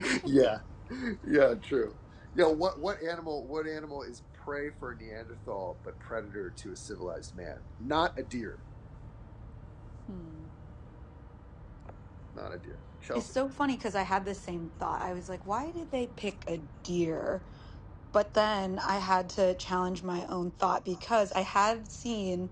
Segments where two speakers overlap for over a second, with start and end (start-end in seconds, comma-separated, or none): none